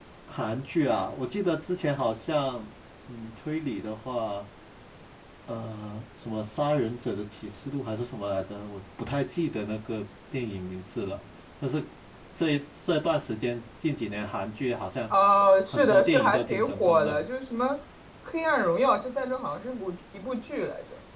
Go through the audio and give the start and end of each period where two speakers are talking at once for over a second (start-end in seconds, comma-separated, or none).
15.7-17.2